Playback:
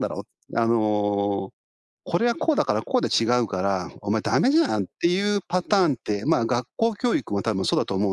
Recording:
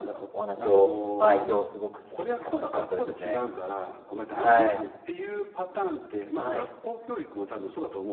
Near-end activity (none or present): present